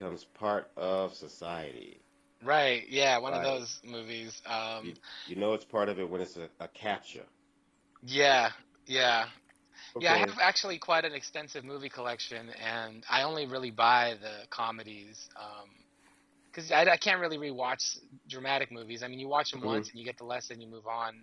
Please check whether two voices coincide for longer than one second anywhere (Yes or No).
No